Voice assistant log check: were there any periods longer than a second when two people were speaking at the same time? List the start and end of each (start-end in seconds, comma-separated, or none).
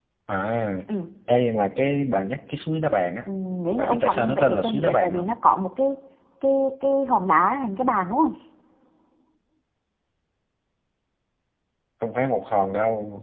3.8-5.3